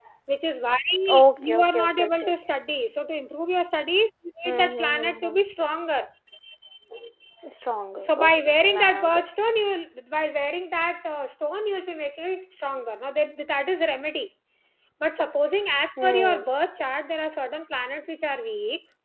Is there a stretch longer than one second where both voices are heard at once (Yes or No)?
Yes